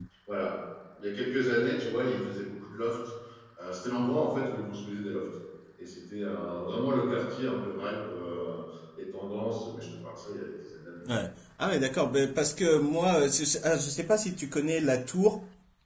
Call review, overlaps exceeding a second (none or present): none